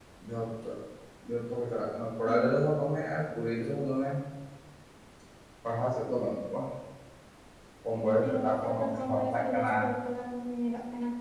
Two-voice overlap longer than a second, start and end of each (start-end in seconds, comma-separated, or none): 8.2-9.7